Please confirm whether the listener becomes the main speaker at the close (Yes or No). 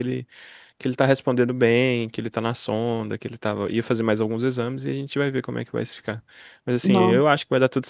No